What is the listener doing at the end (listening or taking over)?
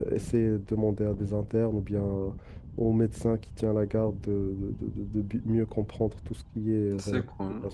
taking over